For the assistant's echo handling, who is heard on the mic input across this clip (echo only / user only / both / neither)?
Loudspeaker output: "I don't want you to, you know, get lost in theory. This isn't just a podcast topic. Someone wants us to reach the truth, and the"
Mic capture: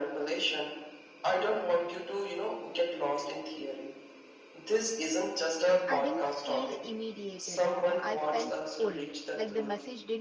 both